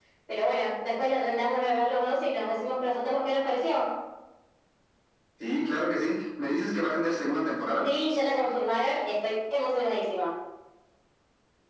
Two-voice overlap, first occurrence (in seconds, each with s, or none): none